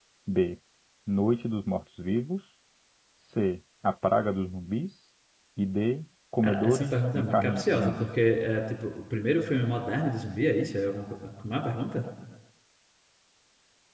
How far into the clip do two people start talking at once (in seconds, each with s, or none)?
6.4 s